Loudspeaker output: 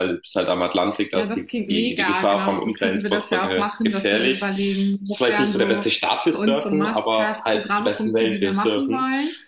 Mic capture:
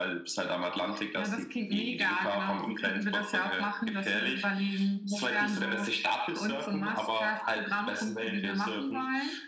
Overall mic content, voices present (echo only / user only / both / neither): echo only